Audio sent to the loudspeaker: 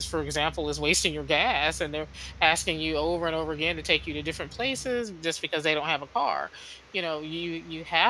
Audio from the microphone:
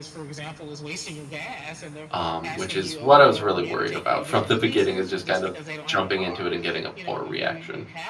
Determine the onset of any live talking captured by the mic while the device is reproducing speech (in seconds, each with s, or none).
2.1 s